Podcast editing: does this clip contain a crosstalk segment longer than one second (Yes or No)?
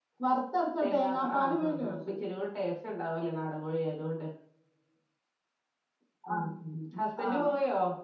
Yes